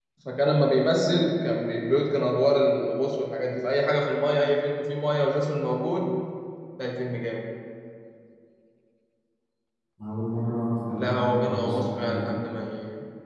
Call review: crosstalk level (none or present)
present